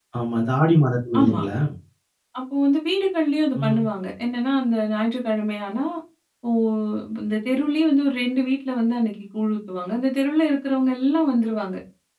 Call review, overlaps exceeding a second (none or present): none